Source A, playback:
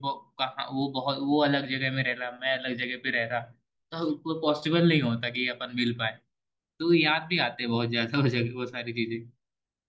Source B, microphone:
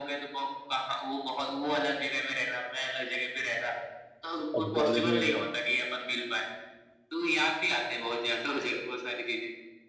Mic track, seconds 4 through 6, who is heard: both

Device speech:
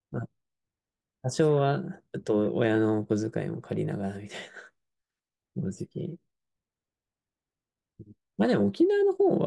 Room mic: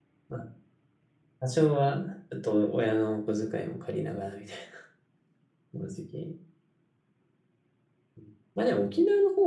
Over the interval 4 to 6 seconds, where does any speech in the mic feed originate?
echo only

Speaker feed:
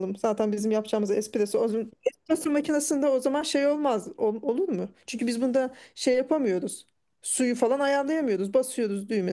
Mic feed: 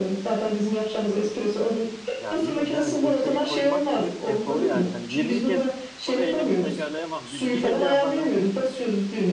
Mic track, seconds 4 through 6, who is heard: both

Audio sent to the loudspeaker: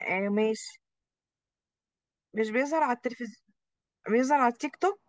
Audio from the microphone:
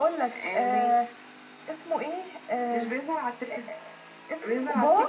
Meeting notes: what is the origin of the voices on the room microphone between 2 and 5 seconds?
both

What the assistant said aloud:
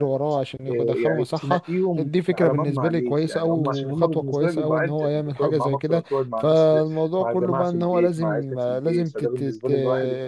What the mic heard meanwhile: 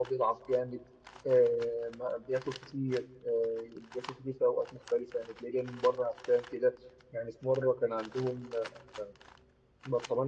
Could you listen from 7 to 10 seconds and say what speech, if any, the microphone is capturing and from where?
user only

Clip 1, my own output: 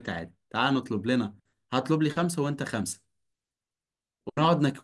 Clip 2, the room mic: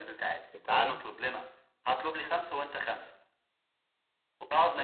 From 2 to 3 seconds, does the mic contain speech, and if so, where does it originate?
echo only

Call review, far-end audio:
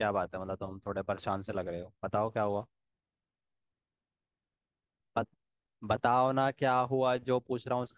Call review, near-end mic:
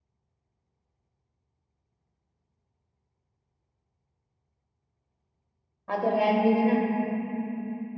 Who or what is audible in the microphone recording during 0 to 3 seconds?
neither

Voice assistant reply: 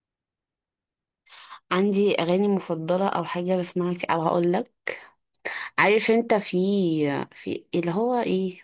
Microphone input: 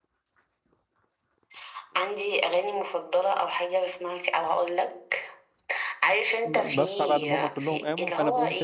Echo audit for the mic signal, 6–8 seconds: both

